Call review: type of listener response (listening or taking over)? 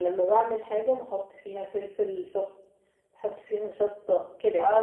taking over